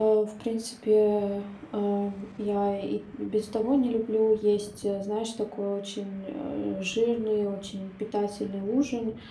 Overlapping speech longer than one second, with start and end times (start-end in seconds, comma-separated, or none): none